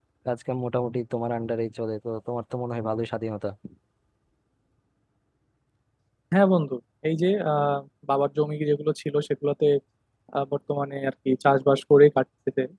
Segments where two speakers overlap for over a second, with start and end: none

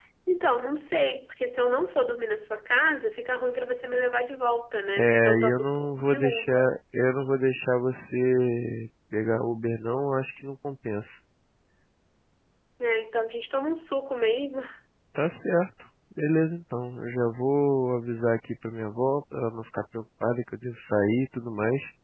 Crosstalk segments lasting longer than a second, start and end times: 5.0-6.7

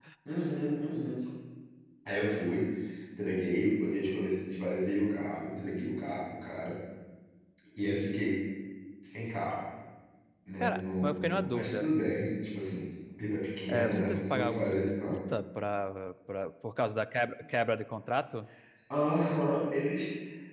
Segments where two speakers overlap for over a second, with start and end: 10.6-11.9, 13.7-15.2

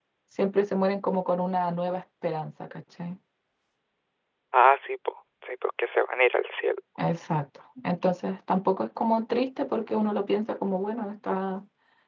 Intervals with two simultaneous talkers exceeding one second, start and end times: none

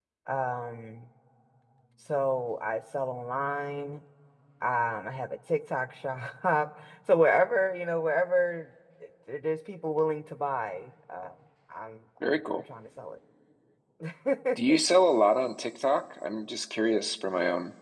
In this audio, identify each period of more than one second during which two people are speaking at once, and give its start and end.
none

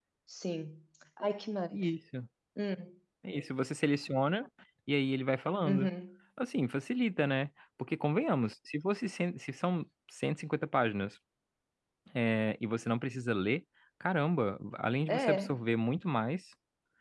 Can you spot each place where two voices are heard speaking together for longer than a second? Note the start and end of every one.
none

